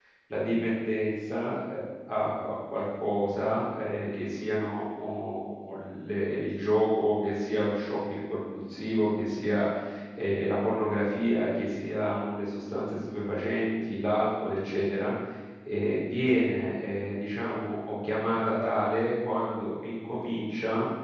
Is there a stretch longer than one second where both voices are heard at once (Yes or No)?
No